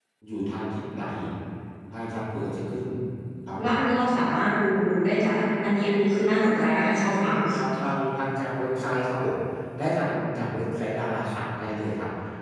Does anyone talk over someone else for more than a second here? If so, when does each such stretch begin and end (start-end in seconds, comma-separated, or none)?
none